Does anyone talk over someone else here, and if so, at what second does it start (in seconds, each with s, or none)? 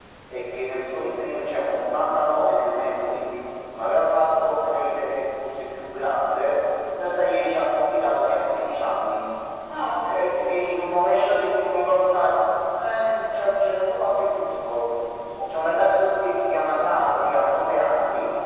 10.4 s